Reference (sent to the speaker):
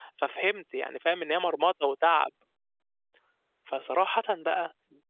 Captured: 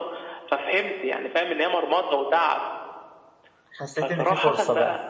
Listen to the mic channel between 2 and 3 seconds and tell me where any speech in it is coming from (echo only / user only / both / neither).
echo only